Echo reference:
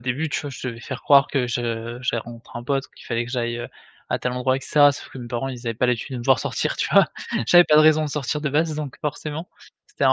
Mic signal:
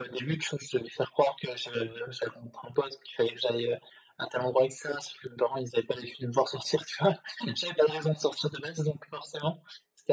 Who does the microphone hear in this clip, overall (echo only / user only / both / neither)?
echo only